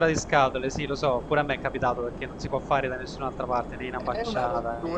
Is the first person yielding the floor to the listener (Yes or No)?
Yes